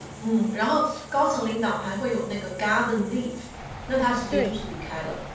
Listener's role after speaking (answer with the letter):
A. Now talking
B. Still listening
B